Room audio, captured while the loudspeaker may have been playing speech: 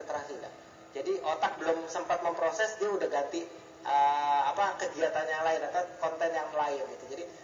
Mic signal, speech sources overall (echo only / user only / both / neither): echo only